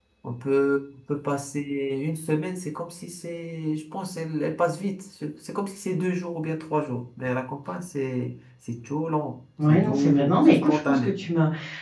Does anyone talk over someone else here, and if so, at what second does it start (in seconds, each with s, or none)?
9.6 s